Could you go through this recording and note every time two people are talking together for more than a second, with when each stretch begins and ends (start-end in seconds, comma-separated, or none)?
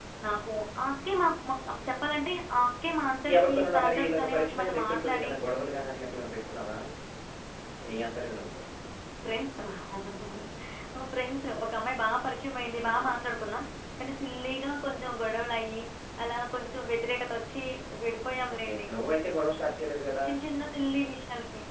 3.4-5.3